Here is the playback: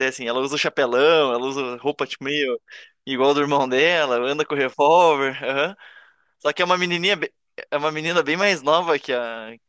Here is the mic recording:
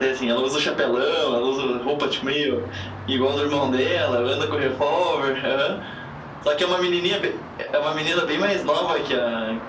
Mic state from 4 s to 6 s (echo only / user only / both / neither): echo only